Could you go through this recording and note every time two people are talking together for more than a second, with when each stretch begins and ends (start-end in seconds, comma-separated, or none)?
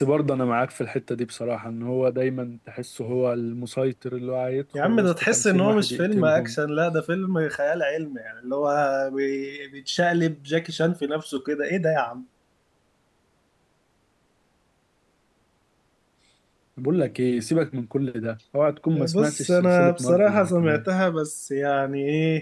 4.7-6.6, 19.1-20.9